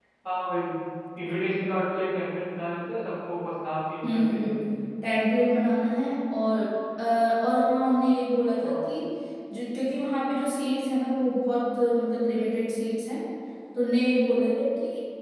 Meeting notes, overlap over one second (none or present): none